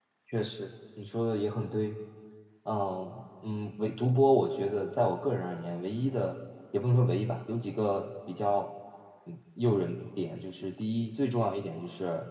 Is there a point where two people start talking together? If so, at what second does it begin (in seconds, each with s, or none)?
none